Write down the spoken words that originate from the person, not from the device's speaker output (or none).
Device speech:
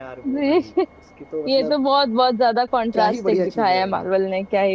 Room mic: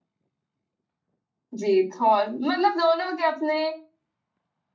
जी थॉर मतलब दोनों के अपने